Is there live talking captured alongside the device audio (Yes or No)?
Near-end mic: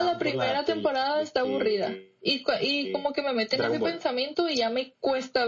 No